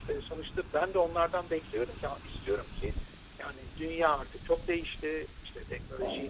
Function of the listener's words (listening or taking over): listening